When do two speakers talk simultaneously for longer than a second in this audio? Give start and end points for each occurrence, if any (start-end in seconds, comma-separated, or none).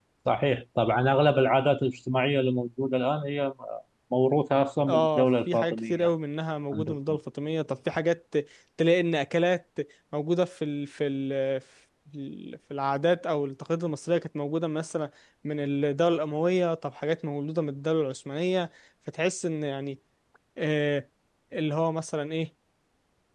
4.9-6.1